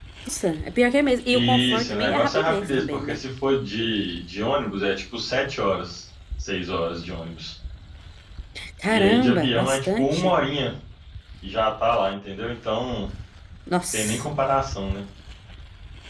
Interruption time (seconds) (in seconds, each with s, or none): 1.3 s